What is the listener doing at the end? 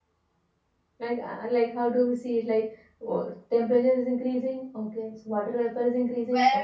taking over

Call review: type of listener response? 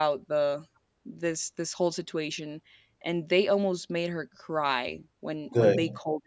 listening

